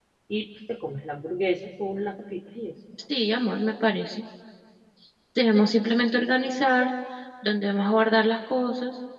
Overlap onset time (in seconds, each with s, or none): none